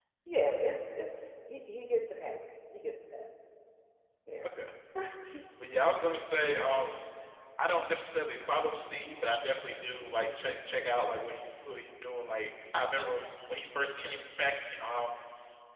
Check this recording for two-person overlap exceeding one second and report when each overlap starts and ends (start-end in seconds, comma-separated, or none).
none